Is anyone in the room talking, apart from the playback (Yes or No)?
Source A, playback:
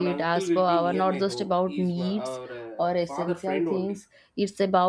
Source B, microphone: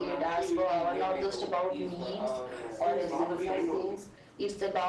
Yes